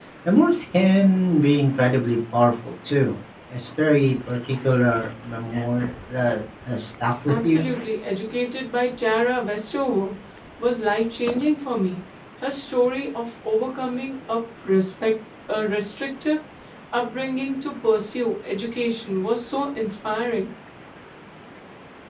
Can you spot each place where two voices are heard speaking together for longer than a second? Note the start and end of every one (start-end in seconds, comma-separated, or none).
none